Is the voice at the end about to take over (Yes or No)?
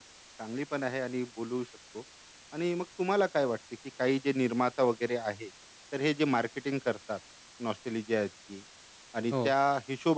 No